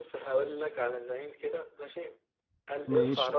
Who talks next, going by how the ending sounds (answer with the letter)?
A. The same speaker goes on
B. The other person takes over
A